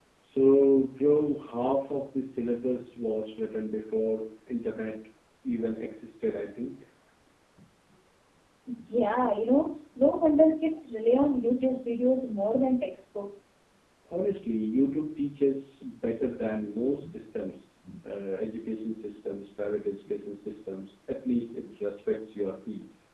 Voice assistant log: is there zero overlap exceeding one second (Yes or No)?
Yes